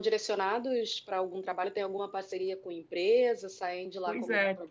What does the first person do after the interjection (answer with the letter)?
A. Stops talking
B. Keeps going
A